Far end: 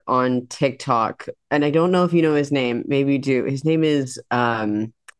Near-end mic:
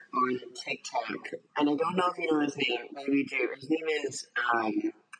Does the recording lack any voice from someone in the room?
Yes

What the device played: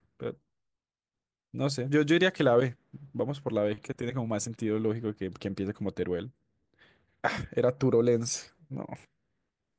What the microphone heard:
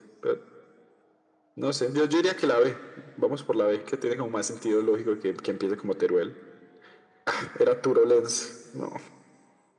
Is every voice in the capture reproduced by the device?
Yes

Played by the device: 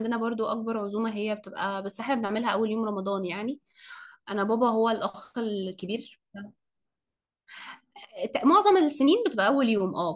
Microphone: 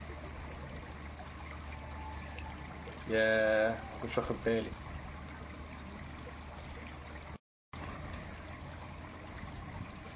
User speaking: Yes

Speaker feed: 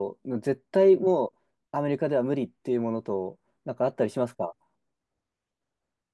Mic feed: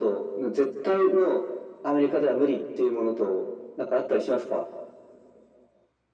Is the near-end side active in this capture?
No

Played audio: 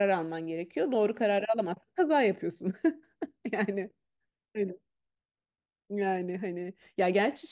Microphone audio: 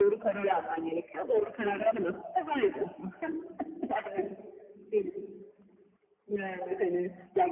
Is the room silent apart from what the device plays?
Yes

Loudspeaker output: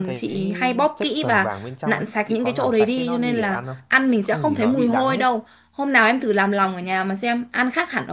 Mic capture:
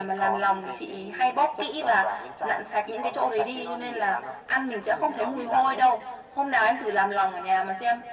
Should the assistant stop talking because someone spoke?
No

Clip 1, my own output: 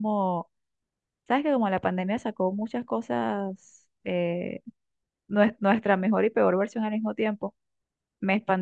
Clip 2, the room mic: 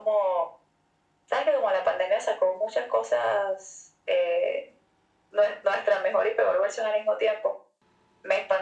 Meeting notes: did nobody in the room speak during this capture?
Yes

